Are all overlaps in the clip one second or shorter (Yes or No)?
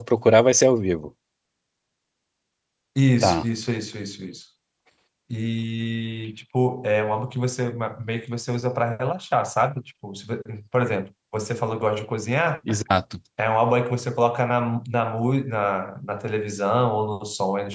Yes